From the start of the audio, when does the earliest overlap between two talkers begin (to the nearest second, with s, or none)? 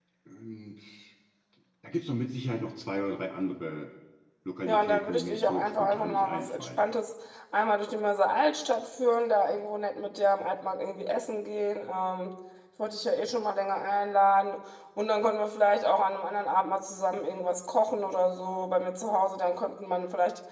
5 s